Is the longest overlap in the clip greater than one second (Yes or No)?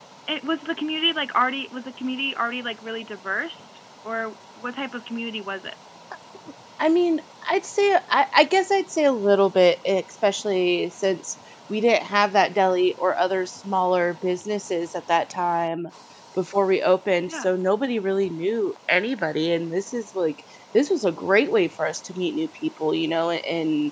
No